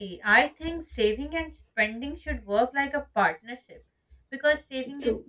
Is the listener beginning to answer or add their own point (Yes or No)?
No